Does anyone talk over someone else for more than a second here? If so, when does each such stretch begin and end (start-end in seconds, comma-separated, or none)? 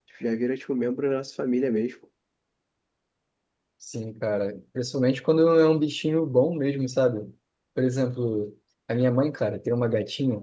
none